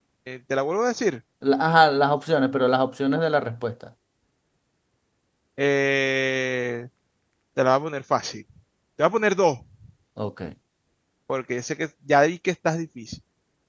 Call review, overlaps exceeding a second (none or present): none